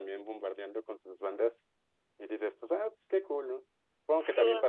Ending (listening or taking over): listening